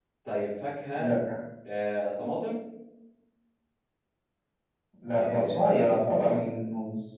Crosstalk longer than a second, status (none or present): present